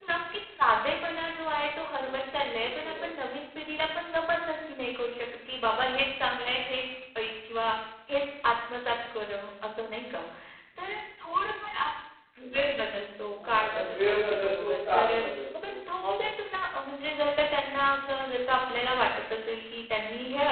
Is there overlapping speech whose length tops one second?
Yes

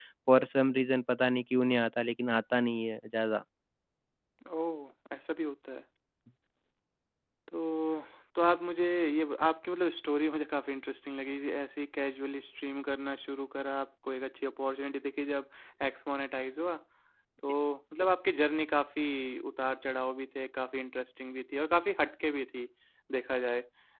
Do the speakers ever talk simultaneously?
No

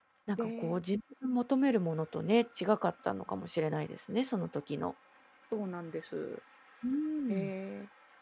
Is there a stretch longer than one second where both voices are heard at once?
No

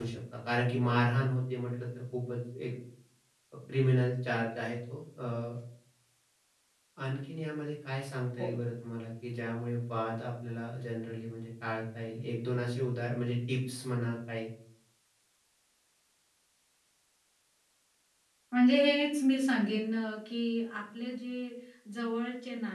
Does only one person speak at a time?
Yes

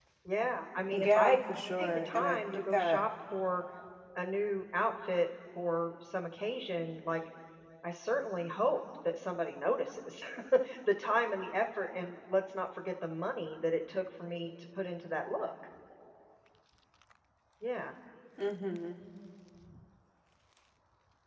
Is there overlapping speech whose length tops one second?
Yes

